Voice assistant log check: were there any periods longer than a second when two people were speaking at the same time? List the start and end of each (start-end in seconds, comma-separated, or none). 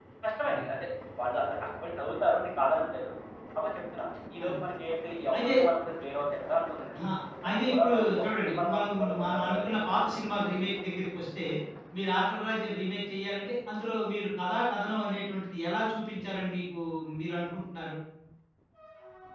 7.5-10.0